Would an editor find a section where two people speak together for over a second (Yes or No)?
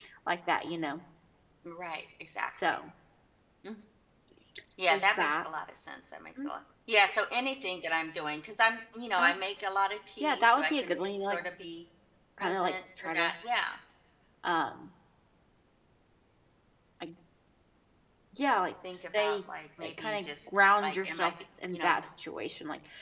Yes